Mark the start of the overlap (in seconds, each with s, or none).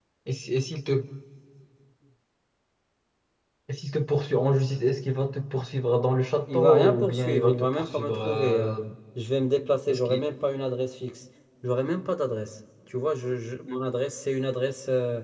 6.5 s